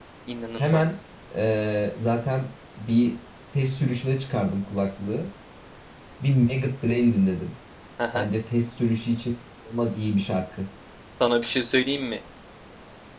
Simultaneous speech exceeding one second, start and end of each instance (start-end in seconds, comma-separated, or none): none